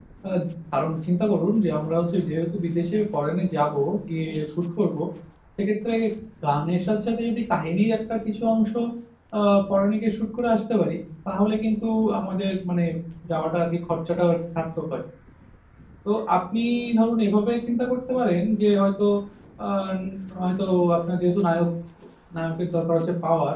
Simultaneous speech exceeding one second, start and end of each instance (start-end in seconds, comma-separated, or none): none